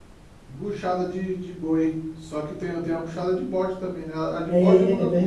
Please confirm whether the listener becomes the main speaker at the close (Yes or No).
Yes